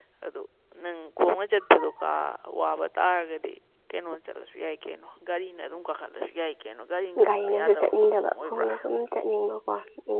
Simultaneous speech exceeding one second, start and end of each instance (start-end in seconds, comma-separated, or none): 7.2-8.7